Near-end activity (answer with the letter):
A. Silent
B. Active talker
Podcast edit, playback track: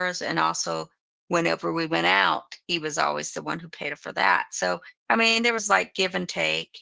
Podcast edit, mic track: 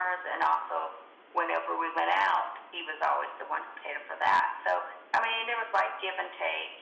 A